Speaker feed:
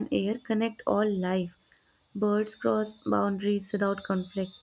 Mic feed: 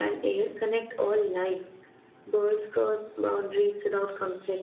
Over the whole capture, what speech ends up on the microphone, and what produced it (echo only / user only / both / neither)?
echo only